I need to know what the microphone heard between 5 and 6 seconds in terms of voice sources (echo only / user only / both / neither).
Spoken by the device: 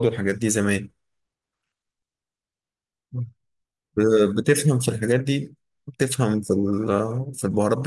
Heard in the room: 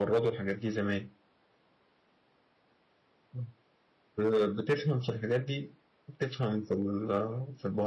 echo only